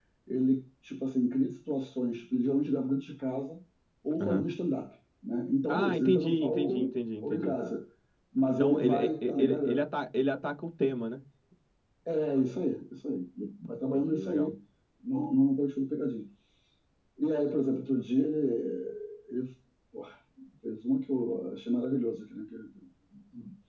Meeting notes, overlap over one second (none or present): present